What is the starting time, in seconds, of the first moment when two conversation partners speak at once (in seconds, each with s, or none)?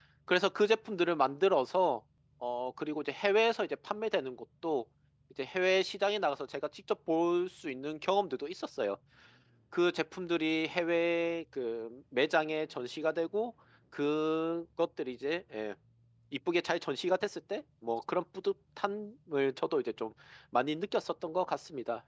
none